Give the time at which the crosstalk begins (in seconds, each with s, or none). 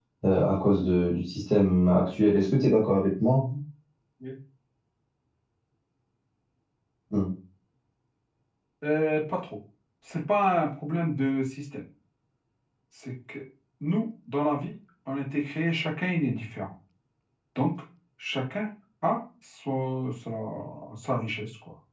none